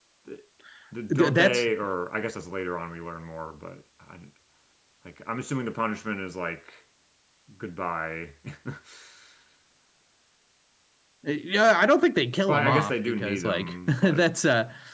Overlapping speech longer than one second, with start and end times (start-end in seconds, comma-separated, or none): 12.5-14.2